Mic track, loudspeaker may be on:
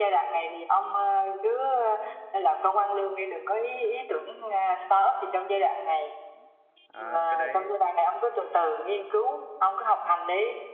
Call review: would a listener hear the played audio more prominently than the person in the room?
Yes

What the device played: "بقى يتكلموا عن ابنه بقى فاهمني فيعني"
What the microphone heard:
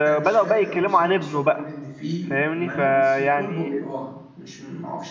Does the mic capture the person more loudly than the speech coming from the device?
No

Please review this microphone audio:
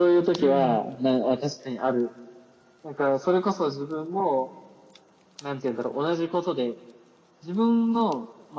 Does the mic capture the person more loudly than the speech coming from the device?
No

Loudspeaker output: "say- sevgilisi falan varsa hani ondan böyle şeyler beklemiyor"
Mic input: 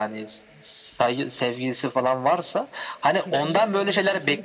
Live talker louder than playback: No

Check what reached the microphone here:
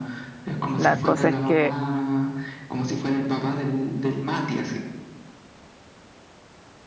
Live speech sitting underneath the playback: No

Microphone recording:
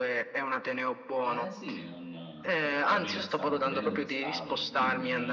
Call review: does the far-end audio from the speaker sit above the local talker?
Yes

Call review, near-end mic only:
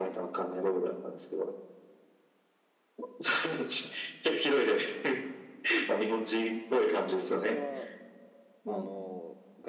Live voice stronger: No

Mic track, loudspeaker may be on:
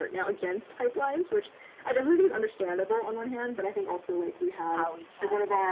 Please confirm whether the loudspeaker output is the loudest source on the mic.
Yes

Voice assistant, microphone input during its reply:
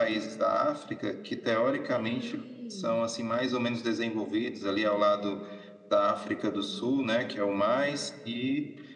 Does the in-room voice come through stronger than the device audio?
No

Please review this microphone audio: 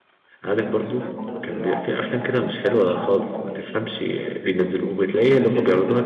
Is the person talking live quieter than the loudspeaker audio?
No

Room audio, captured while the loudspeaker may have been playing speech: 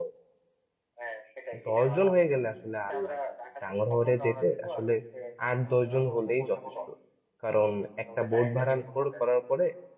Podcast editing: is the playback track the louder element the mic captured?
No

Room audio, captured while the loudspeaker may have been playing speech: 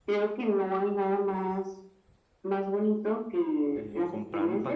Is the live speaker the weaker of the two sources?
Yes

